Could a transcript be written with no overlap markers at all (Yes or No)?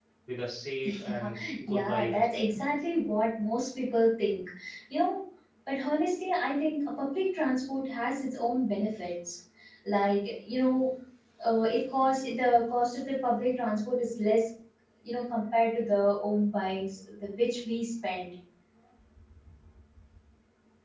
No